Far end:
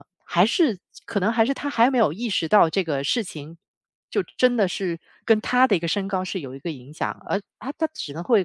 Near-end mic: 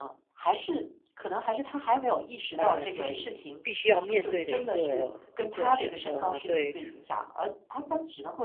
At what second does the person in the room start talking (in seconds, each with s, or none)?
2.5 s